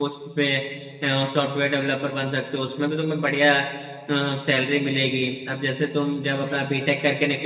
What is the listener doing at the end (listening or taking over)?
listening